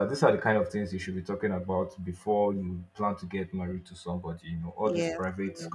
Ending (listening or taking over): listening